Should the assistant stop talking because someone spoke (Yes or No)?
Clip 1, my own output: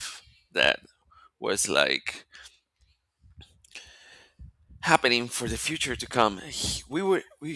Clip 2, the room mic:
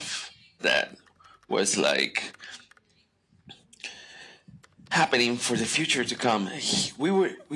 No